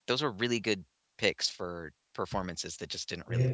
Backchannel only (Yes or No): Yes